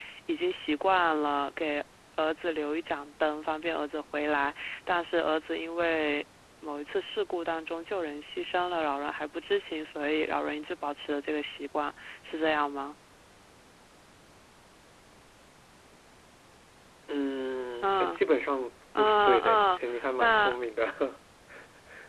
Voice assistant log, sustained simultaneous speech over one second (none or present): present